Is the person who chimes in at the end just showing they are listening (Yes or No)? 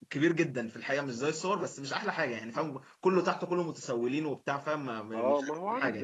No